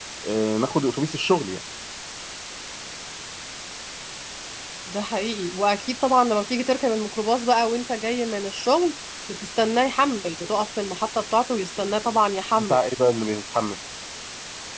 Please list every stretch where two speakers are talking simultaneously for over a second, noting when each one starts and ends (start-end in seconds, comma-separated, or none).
none